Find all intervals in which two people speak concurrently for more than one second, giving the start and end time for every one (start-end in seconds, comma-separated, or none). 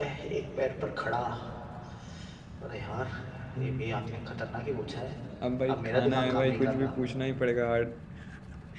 5.7-7.0